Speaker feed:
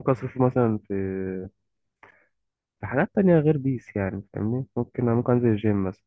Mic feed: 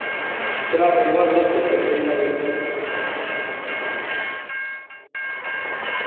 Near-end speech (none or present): present